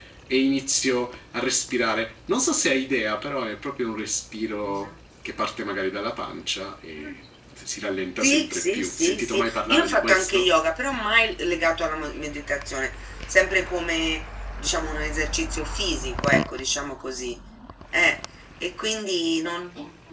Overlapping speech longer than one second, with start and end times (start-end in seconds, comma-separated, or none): 8.2-10.5